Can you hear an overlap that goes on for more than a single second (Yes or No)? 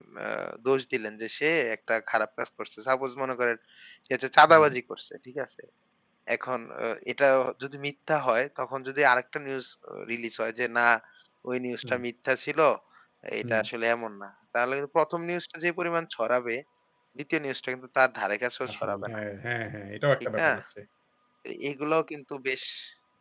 No